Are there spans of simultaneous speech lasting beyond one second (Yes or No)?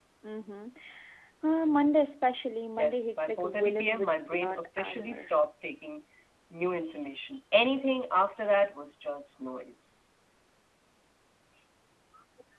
Yes